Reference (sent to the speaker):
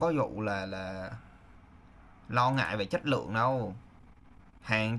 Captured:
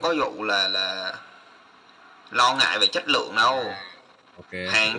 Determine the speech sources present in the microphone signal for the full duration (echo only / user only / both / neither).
both